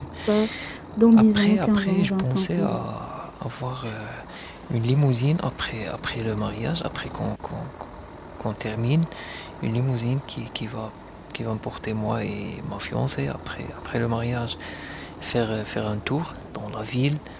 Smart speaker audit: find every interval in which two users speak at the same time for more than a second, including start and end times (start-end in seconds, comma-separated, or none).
1.1-2.8